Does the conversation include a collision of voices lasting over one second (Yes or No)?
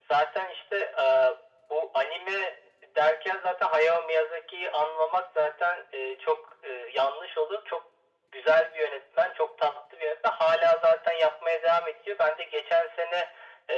No